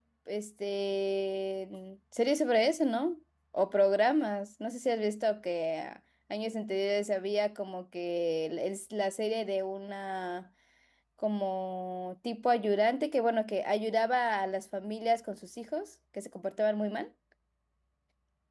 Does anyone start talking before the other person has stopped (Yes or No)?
No